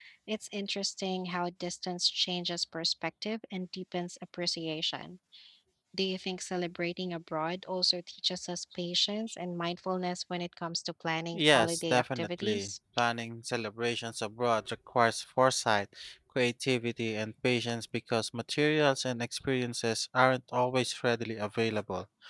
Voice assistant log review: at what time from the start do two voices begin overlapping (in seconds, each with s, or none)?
11.3 s